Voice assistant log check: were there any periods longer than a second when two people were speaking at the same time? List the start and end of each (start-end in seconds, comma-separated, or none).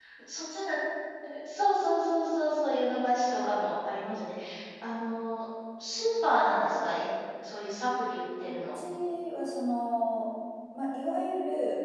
none